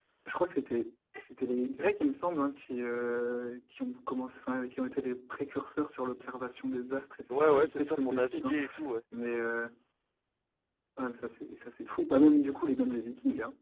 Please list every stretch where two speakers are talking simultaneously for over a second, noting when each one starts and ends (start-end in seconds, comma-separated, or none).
7.3-8.6